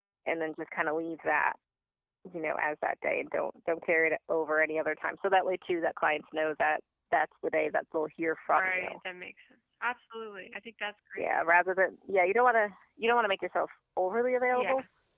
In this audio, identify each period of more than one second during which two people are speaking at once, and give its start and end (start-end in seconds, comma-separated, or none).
none